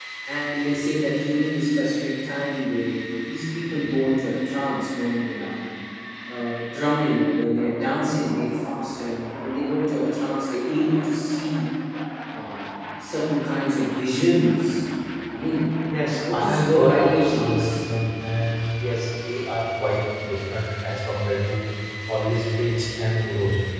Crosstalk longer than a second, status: present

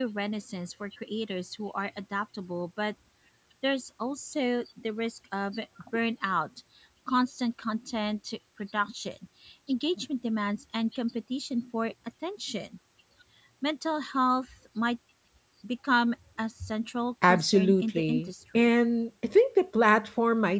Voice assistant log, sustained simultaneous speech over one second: present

